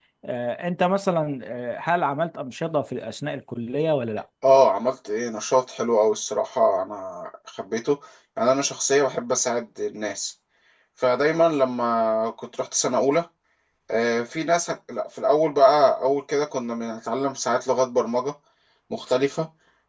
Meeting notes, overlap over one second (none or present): none